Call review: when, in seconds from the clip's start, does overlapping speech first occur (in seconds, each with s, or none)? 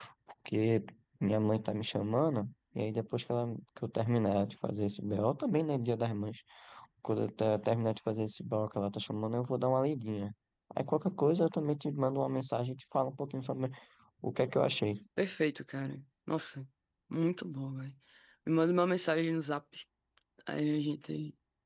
none